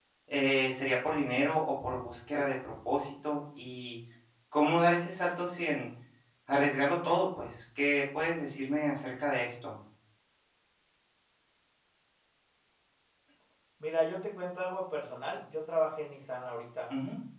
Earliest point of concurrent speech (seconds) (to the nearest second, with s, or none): none